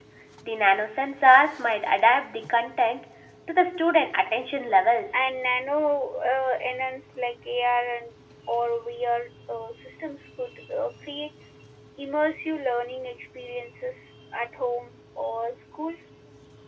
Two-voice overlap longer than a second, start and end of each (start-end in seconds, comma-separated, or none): none